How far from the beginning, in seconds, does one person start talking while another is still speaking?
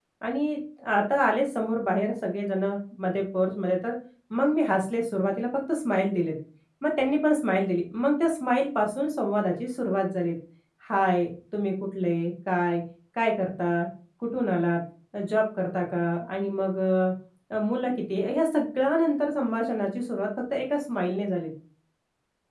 none

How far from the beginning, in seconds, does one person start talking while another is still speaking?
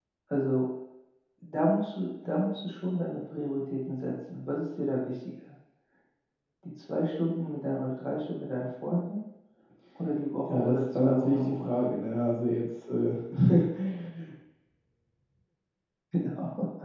10.5 s

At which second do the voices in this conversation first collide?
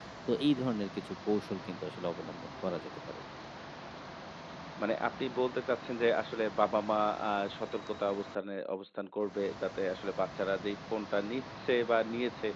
none

